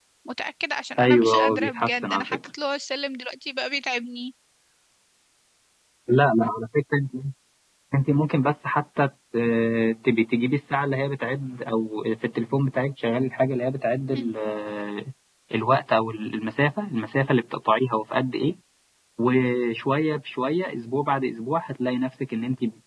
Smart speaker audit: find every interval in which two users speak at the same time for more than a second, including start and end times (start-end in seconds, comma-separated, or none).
1.0-2.4